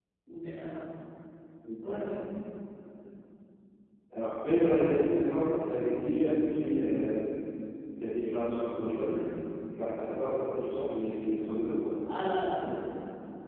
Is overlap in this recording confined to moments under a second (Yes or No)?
Yes